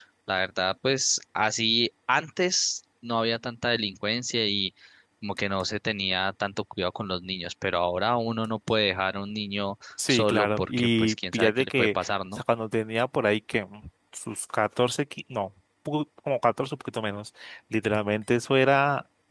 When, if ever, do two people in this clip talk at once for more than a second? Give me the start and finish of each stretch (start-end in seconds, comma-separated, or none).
10.1-12.4